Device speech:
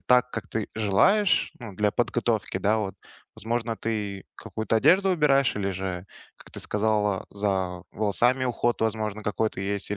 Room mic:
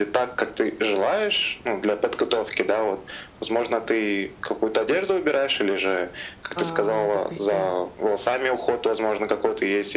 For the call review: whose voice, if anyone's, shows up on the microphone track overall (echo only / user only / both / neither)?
both